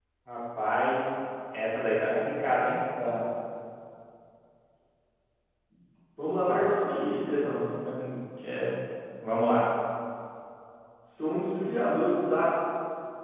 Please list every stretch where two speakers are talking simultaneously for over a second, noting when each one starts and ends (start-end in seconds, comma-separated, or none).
6.4-7.6